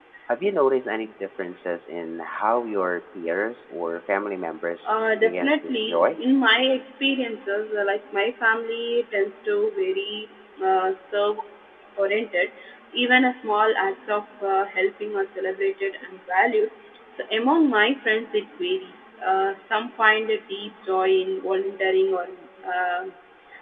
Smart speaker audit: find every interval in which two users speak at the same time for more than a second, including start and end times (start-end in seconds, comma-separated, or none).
4.8-6.2